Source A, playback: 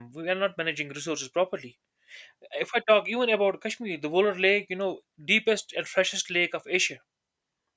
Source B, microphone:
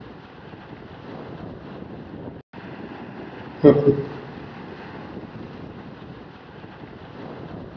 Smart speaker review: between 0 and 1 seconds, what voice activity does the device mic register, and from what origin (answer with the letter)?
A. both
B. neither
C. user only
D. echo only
B